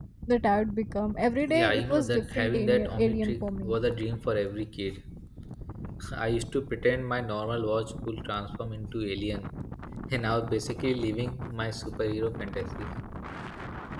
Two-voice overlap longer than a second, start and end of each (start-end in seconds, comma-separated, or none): 1.5-3.8